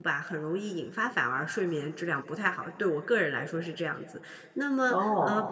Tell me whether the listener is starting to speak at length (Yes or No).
No